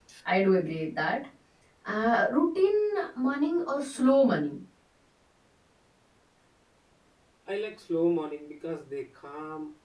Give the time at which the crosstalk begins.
none

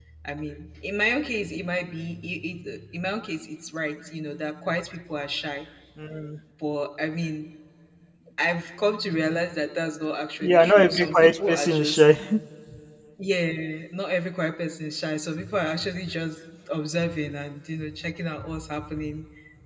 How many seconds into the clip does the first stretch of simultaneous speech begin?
10 s

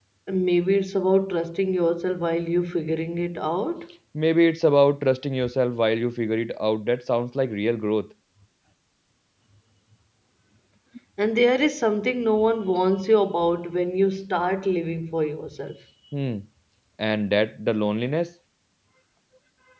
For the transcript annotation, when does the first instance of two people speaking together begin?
none

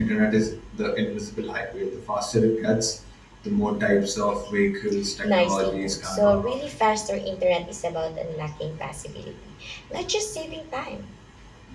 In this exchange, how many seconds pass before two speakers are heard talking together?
5 s

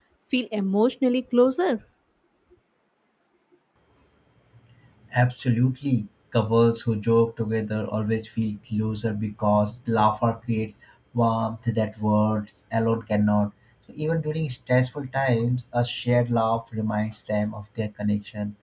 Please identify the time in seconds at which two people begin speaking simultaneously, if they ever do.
none

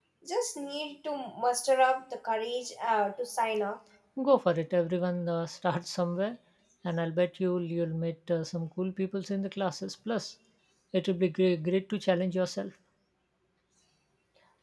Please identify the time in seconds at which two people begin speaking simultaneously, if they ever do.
none

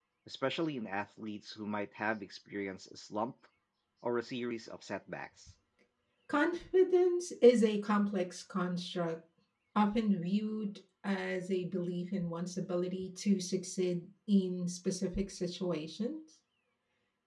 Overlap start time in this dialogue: none

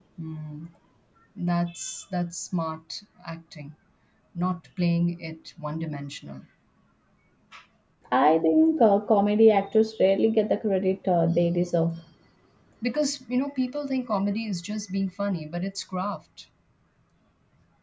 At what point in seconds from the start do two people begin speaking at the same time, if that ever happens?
none

